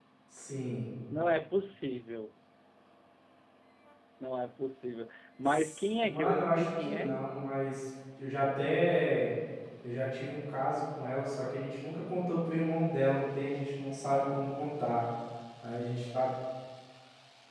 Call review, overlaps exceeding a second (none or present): present